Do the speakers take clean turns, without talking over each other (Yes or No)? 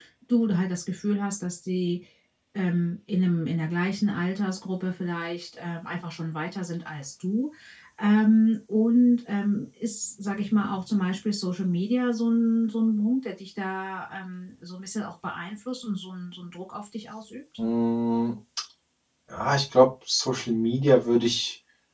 Yes